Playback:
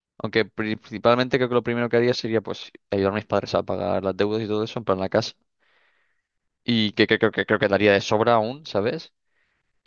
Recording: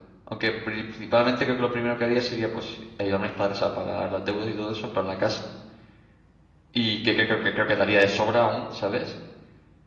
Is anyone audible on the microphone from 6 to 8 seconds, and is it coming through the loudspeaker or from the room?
echo only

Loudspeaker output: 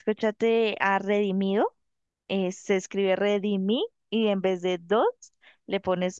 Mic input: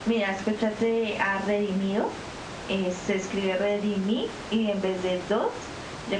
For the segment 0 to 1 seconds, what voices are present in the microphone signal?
echo only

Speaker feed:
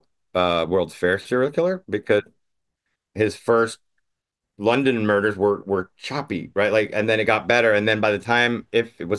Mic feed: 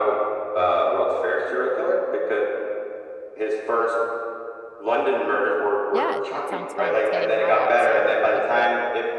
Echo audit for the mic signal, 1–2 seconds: echo only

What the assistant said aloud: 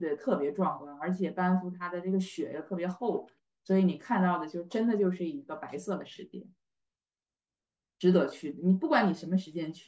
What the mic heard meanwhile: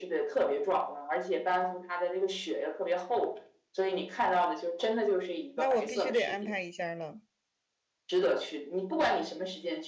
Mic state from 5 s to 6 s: both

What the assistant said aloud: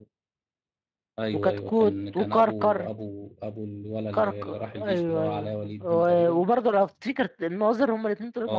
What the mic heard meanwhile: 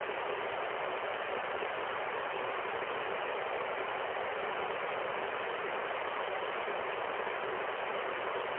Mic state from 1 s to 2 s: neither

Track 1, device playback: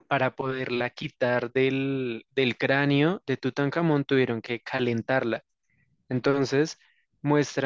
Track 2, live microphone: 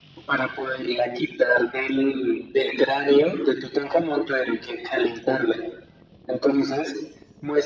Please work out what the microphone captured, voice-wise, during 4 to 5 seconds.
echo only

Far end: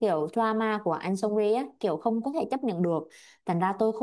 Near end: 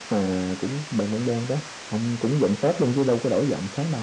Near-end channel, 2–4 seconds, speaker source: user only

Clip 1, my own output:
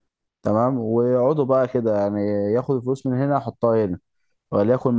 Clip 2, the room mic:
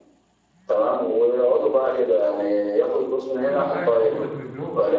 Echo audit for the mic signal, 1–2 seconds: echo only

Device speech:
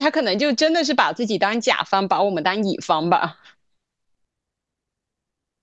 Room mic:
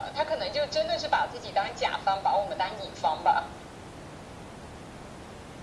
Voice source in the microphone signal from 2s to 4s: echo only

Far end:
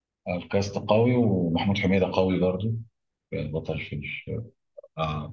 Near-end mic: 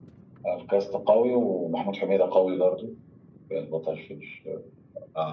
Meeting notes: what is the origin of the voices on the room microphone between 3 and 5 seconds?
echo only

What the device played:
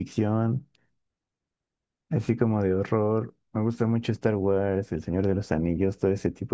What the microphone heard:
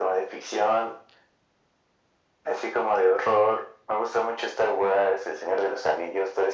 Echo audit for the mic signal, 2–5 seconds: echo only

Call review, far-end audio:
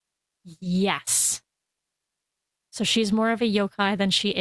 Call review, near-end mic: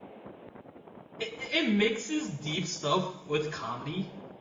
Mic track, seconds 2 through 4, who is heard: user only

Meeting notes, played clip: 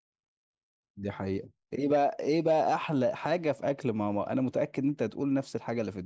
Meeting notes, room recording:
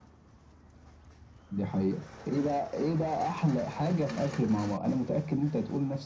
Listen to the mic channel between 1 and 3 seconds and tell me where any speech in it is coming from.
echo only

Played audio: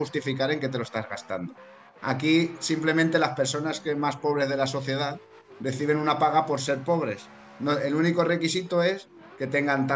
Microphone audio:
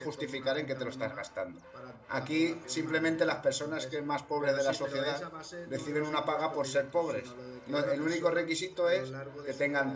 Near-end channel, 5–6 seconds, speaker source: both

